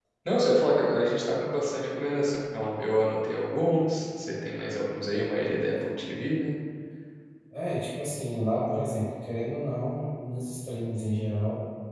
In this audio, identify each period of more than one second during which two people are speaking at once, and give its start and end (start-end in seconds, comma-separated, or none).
none